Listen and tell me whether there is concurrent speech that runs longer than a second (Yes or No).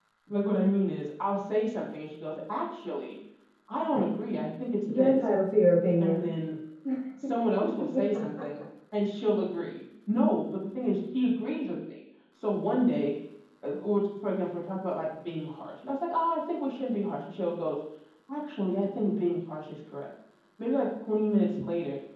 No